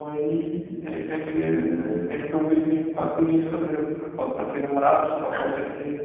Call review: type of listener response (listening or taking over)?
taking over